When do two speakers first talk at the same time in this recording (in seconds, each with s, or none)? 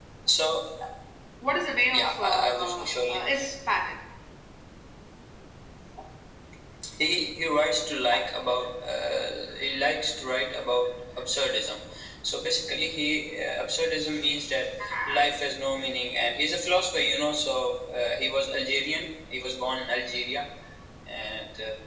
1.9 s